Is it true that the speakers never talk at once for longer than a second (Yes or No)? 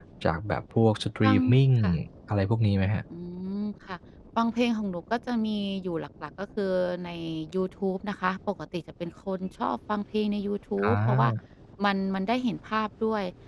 Yes